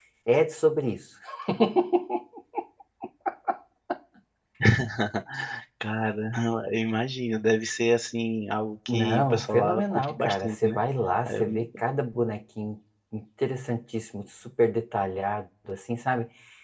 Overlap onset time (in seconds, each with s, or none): 8.9 s